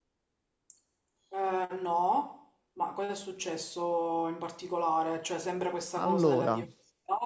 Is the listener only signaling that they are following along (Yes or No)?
Yes